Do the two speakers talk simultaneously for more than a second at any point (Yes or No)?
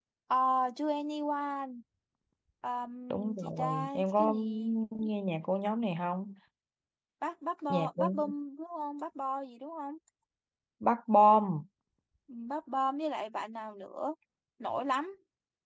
Yes